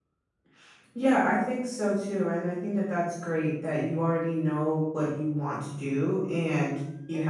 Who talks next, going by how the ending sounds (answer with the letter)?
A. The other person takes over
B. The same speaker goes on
B